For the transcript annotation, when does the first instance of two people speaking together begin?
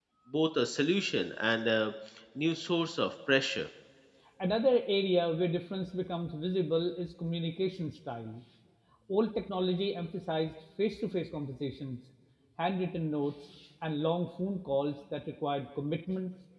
none

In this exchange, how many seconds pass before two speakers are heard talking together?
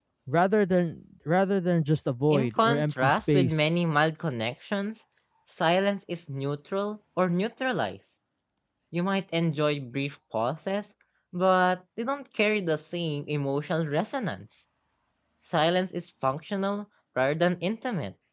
2.3 s

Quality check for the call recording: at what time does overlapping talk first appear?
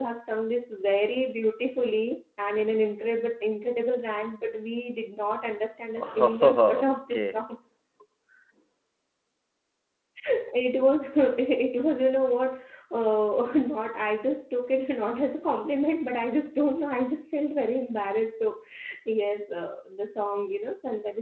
6.0 s

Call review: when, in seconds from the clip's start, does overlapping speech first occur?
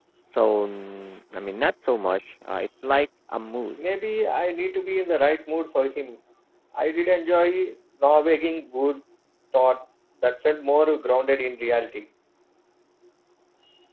none

